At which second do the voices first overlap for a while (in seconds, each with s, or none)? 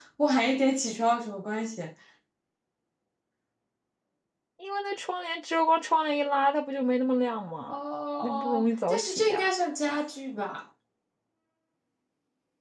8.2 s